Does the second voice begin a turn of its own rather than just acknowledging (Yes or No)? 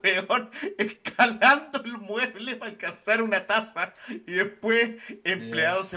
No